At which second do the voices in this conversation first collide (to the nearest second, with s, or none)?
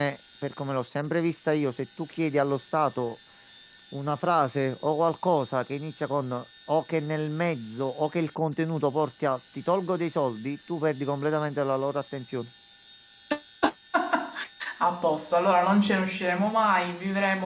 none